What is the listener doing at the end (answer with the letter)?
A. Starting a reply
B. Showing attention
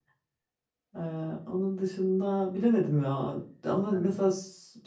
B